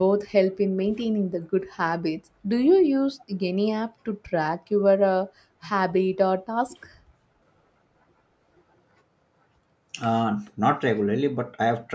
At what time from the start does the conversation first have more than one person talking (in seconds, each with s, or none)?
none